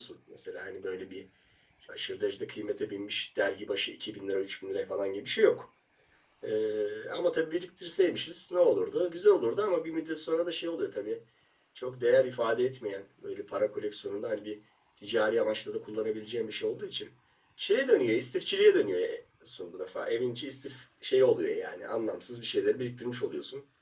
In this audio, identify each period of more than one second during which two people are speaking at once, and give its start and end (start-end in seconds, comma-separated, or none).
none